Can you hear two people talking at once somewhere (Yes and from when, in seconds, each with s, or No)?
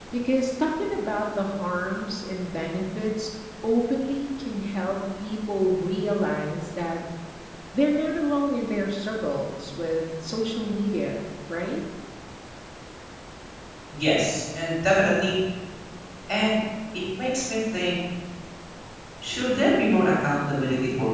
No